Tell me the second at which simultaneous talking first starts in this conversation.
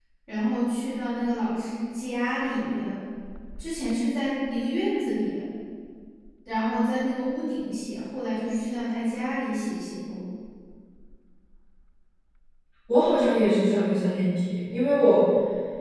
none

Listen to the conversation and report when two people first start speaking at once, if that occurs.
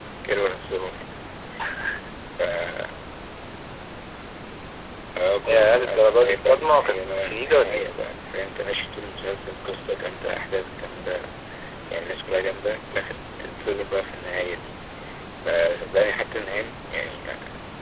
5.5 s

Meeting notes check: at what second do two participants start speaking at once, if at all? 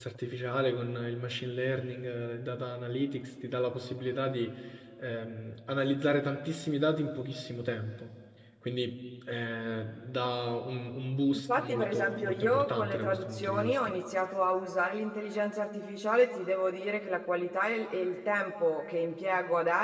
11.5 s

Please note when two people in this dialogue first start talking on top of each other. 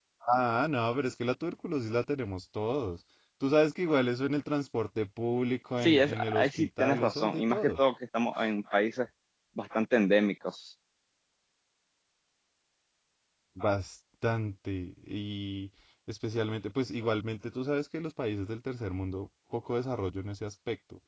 5.8 s

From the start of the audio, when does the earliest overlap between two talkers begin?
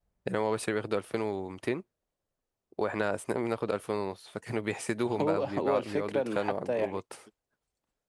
5.0 s

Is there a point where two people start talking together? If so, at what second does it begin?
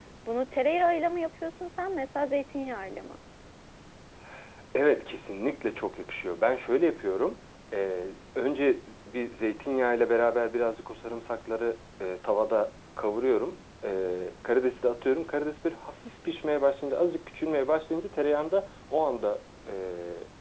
none

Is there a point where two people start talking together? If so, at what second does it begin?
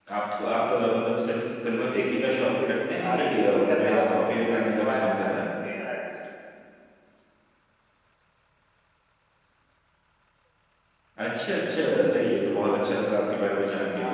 3.0 s

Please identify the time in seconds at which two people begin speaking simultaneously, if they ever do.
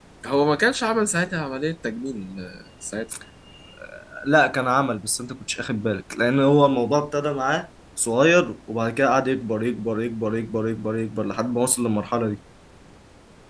none

